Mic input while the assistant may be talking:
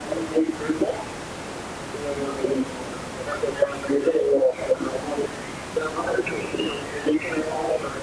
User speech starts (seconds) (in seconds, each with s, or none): none